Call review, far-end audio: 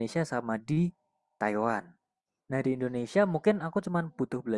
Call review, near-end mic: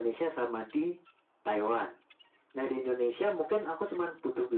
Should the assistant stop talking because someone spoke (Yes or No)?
No